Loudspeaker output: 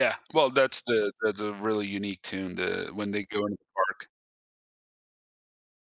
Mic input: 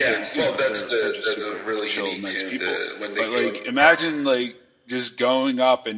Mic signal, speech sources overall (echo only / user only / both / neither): both